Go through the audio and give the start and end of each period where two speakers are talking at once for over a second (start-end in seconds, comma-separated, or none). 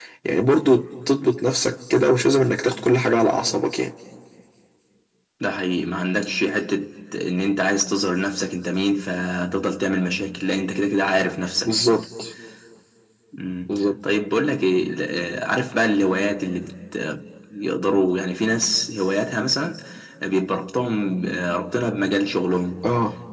none